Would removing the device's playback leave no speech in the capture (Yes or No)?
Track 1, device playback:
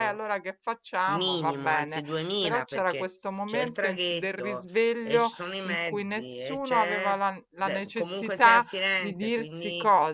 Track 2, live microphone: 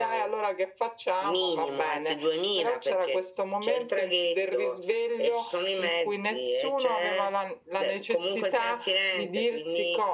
Yes